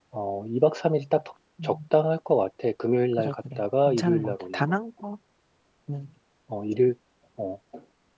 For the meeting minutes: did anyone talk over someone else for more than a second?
Yes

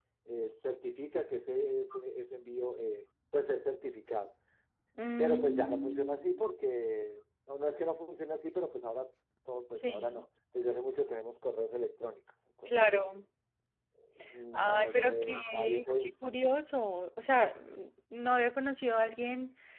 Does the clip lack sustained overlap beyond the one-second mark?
No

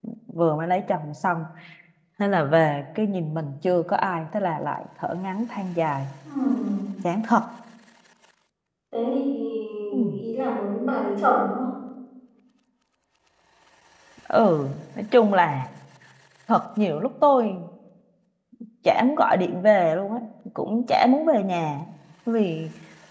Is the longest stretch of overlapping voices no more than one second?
Yes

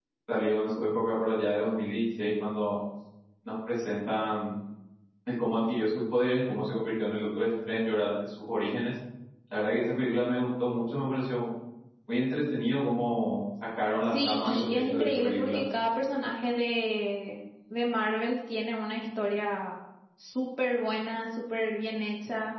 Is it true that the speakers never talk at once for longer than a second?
No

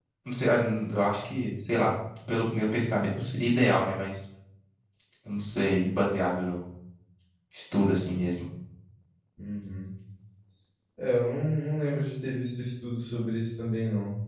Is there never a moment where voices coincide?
Yes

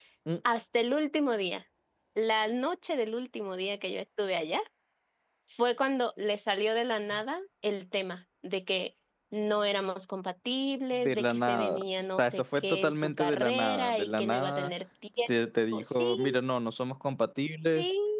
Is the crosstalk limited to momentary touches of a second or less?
No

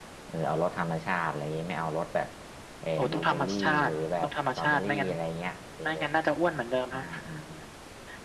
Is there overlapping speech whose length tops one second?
Yes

